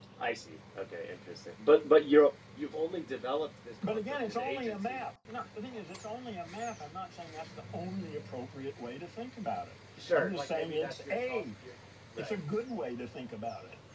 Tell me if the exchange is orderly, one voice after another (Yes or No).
No